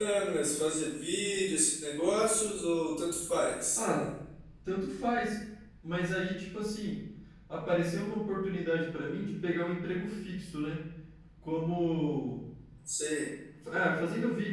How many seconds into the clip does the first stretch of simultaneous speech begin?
none

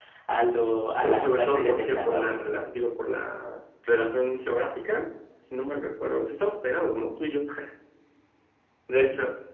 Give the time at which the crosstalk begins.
1.0 s

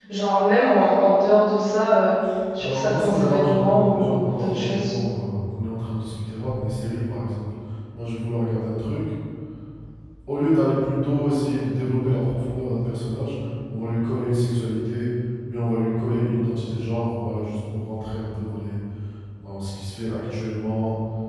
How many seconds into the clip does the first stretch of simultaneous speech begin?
2.6 s

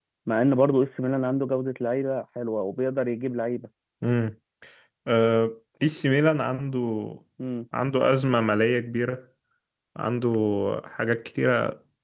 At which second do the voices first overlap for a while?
none

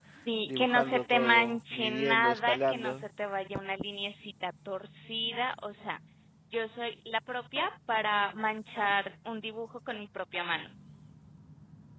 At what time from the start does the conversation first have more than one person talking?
0.6 s

